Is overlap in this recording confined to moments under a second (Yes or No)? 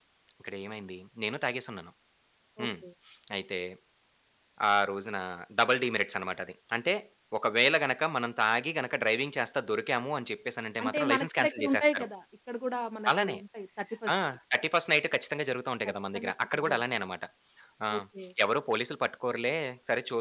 No